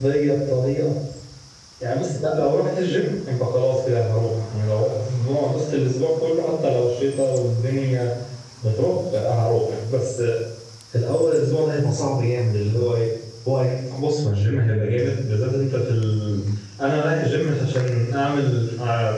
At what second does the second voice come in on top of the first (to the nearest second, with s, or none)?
none